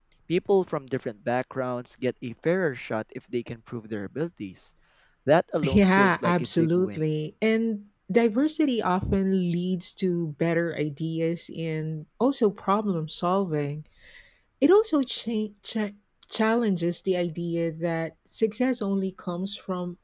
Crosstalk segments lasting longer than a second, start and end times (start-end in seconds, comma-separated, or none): 5.6-7.0